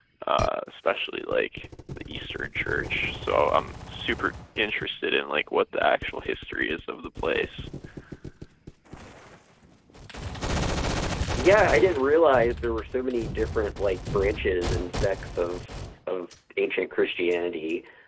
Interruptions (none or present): none